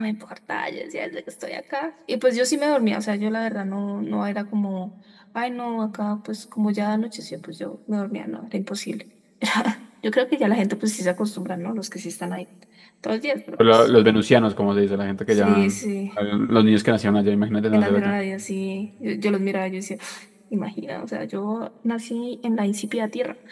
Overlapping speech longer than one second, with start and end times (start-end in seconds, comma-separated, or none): none